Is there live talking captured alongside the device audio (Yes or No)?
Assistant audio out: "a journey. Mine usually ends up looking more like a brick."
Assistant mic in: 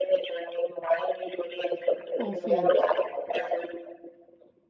Yes